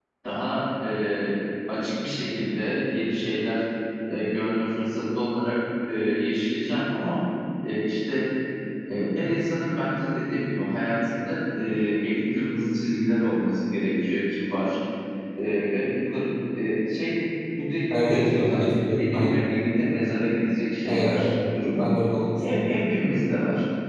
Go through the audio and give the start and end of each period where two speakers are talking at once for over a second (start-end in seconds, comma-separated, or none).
17.9-19.4